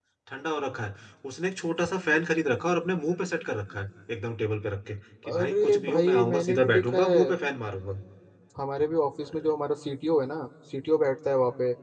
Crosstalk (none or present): present